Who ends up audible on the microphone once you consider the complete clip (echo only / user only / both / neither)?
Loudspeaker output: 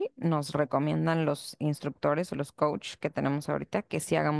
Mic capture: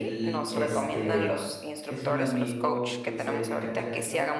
both